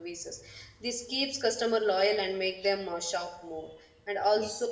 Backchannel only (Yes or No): Yes